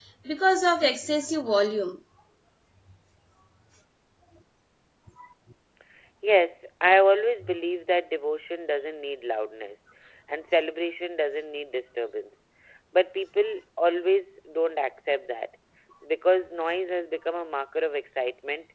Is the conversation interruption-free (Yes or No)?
Yes